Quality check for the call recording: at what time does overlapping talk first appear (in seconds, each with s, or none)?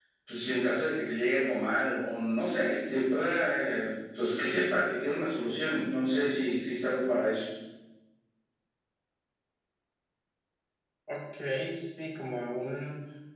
none